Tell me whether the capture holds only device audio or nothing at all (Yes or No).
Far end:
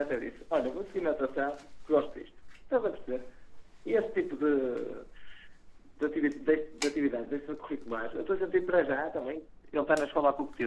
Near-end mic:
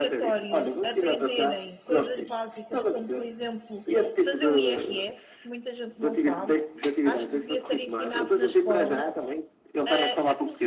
No